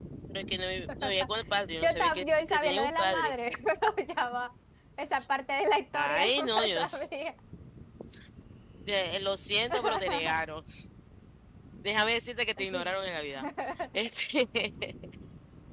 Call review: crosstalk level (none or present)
present